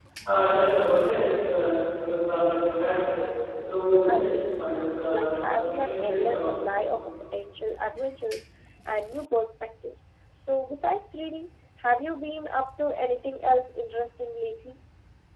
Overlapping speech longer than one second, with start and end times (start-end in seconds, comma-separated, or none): 4.1-6.5